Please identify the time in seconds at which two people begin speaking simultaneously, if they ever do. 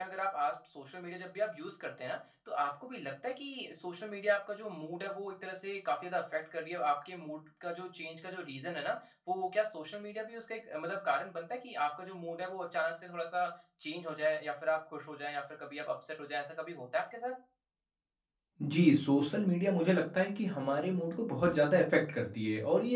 none

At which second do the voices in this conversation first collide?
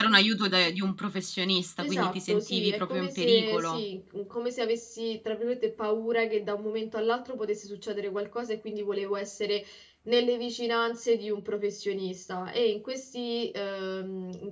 2 s

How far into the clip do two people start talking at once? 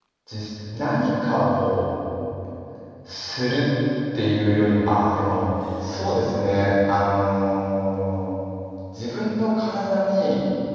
none

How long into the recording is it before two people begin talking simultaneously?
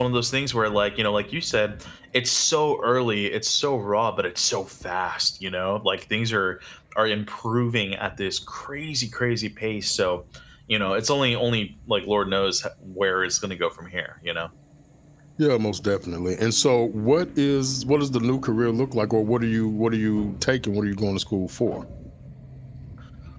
none

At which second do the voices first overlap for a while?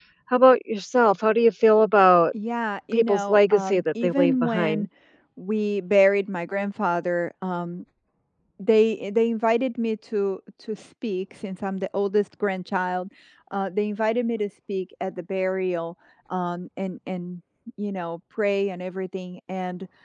3 s

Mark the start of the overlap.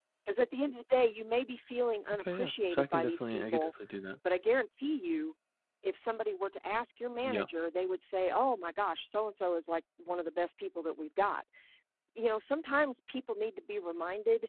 2 s

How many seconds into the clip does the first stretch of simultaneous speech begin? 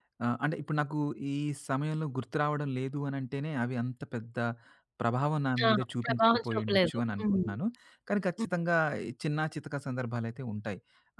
6 s

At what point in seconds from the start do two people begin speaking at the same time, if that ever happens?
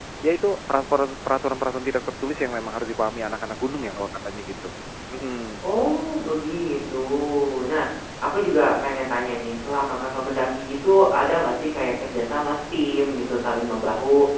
none

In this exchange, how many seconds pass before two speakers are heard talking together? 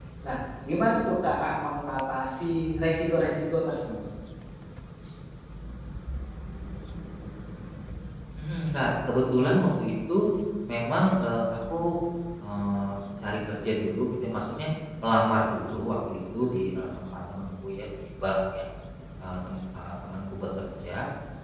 none

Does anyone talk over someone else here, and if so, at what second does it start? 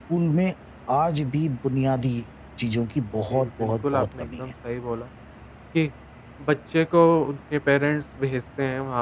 3 s

